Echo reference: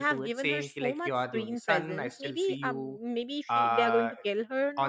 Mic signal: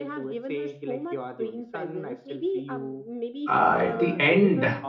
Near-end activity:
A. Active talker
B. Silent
A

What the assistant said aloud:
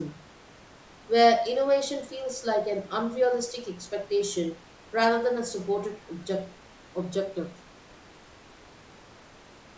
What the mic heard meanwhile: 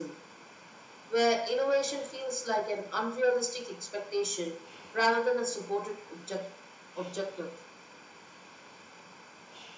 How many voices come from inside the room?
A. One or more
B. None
B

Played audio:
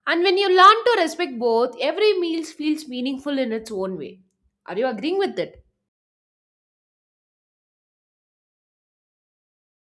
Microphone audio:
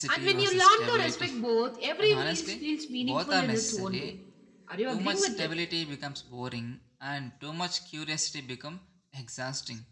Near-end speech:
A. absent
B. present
B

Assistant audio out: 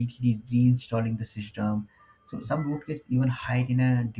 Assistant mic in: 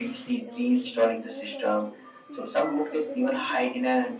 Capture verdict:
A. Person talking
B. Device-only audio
A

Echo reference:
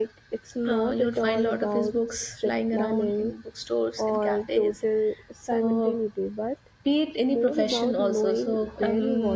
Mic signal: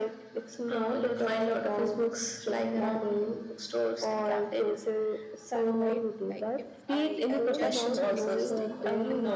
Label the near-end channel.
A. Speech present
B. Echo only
A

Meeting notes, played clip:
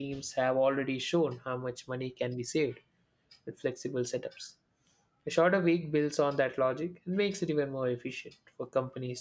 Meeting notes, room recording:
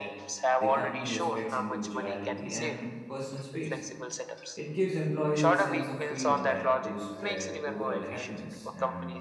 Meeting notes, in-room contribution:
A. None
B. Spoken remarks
B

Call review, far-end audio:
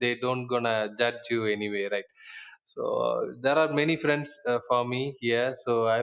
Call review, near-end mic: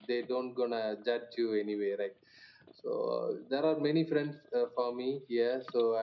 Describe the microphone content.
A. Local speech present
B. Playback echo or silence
B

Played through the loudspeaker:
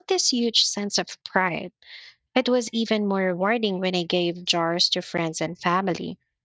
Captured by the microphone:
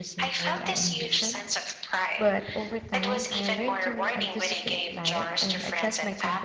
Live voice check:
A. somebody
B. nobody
A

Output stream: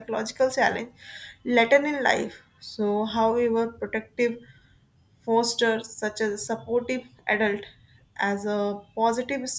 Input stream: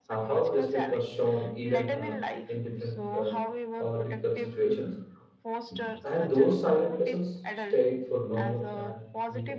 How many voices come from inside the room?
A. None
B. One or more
B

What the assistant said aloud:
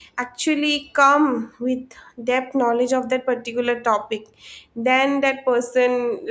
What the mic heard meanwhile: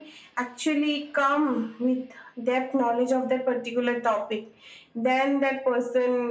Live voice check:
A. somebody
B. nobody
B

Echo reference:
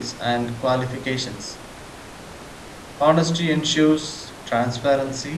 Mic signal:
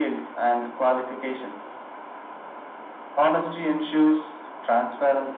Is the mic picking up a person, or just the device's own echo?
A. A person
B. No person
B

